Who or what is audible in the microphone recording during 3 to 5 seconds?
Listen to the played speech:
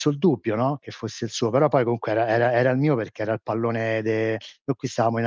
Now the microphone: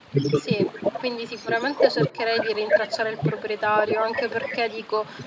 both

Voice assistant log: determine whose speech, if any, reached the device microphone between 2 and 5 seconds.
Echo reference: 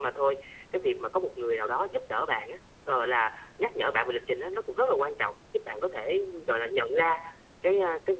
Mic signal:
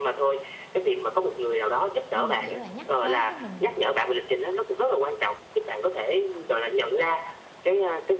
both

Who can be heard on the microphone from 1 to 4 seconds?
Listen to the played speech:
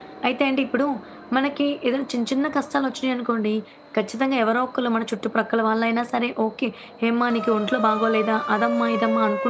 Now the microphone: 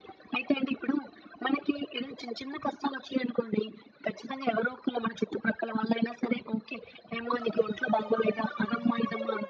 echo only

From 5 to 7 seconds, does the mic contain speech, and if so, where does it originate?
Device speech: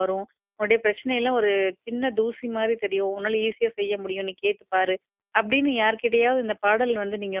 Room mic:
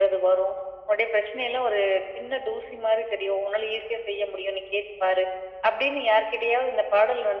echo only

